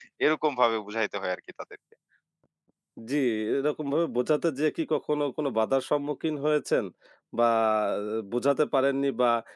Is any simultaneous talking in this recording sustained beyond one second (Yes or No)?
No